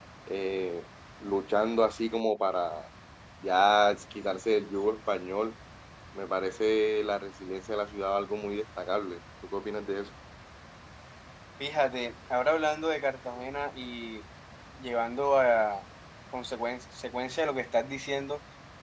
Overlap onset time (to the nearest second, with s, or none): none